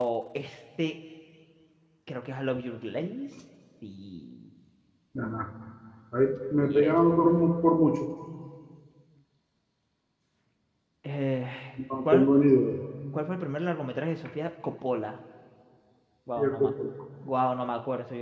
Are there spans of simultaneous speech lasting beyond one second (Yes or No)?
No